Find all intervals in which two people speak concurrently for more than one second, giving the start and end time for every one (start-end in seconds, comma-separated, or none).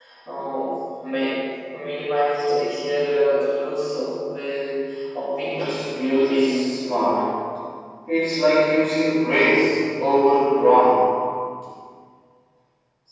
5.4-6.7